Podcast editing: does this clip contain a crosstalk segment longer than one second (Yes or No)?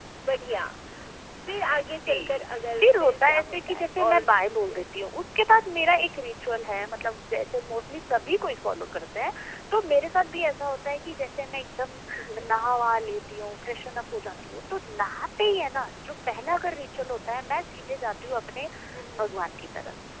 Yes